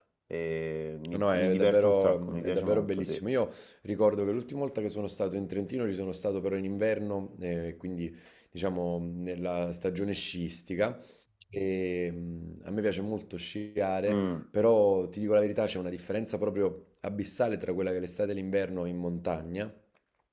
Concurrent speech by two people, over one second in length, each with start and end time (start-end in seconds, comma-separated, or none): 1.1-3.2